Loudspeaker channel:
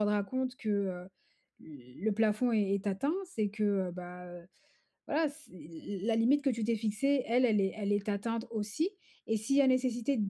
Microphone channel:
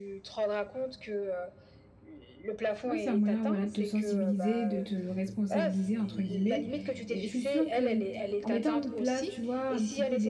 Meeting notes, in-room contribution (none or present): present